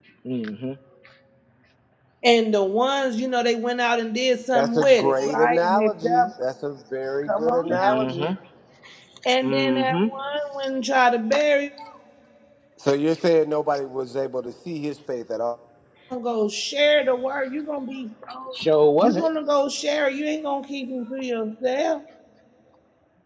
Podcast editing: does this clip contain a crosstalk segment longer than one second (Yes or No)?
Yes